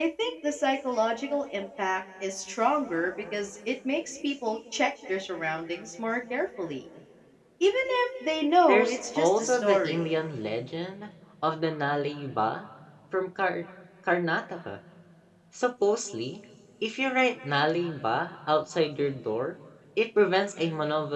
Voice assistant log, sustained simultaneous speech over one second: present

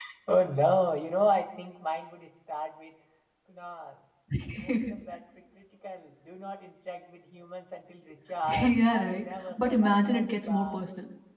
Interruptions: present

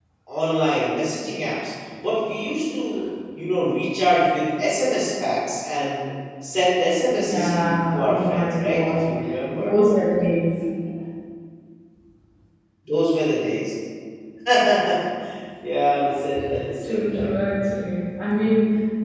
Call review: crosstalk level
present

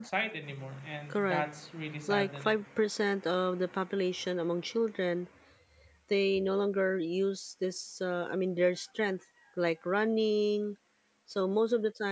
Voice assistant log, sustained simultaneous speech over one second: none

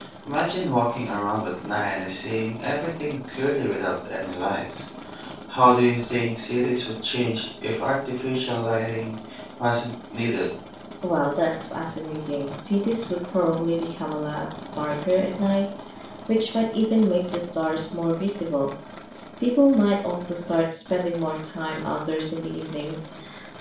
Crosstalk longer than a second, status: none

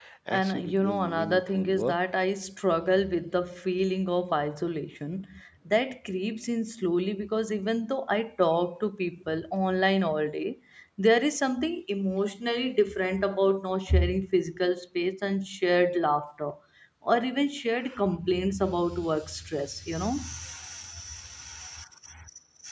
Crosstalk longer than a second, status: present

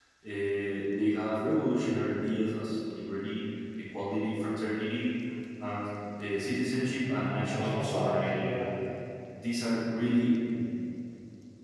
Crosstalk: present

